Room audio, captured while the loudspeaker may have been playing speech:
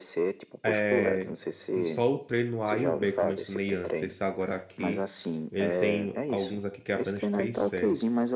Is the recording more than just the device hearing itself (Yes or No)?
Yes